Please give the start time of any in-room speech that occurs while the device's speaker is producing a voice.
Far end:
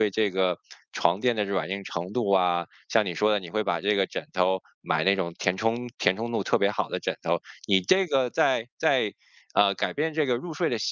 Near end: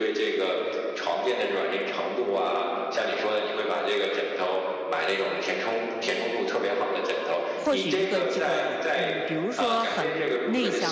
7.5 s

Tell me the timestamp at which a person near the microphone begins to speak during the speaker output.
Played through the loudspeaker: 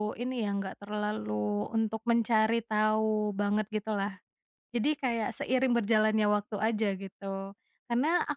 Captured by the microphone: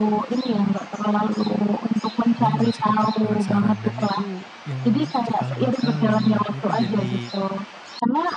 2.4 s

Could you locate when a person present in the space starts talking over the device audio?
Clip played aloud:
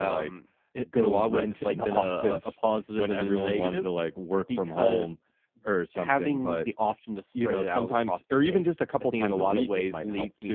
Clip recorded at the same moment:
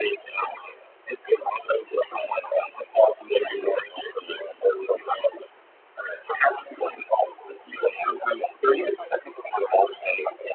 none

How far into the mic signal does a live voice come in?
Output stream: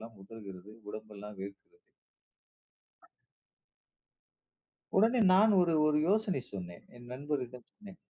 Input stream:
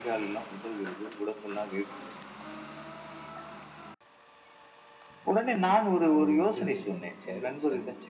6.2 s

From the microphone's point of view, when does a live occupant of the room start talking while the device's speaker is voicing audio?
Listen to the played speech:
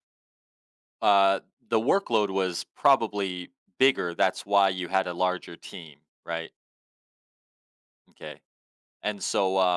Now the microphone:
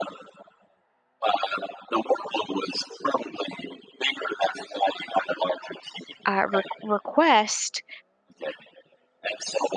6.3 s

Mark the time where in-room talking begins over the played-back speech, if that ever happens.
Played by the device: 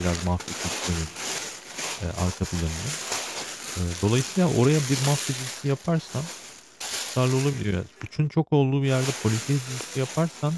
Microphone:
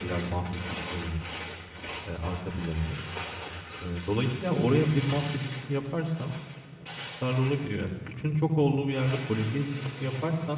none

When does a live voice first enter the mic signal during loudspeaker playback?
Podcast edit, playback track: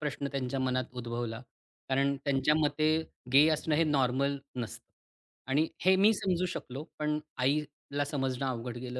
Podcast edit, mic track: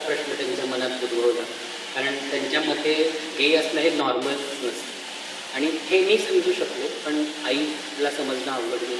none

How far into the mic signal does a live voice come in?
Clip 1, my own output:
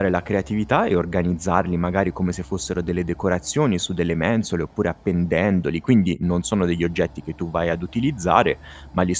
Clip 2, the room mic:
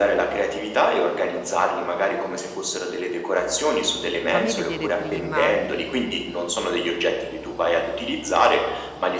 4.3 s

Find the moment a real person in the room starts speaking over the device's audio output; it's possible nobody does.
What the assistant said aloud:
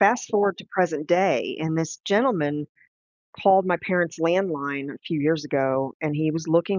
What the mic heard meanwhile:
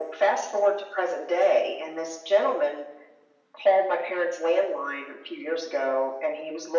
none

